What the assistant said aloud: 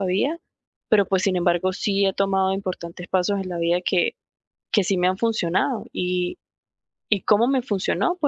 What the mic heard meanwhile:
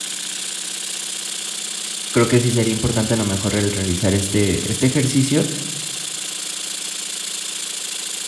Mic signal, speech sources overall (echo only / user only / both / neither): user only